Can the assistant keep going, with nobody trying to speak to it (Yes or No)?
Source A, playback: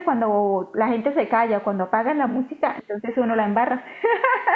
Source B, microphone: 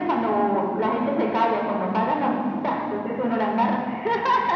Yes